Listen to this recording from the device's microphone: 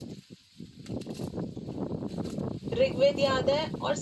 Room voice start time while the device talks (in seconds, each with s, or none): 2.8 s